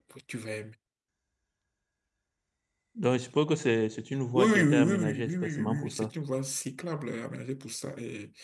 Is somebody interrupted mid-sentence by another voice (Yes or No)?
Yes